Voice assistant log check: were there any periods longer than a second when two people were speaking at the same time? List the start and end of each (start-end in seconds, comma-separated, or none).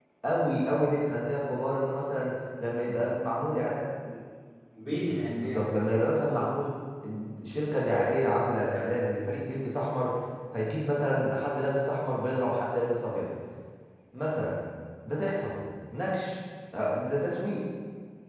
5.0-6.4